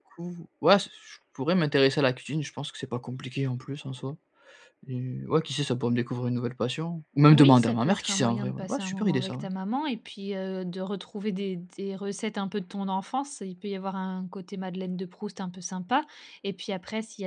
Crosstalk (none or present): present